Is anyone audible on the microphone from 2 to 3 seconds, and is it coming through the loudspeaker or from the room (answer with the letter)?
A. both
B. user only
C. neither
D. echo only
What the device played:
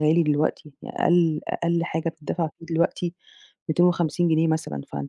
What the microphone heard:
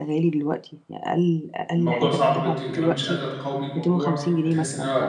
A